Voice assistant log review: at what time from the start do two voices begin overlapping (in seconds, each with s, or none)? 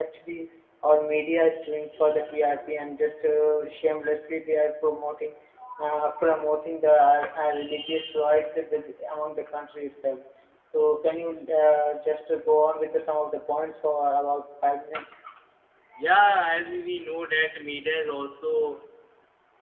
none